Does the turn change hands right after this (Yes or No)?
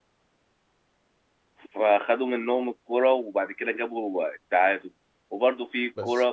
No